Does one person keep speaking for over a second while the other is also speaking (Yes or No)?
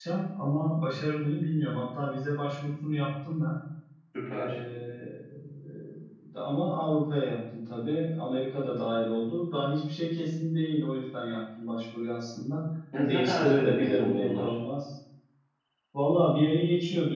Yes